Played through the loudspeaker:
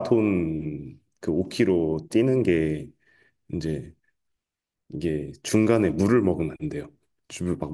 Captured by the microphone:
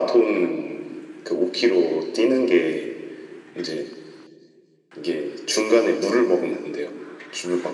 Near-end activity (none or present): none